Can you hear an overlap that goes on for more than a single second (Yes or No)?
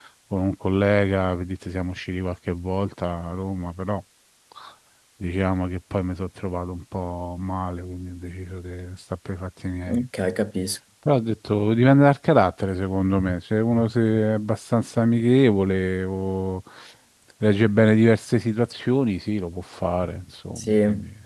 No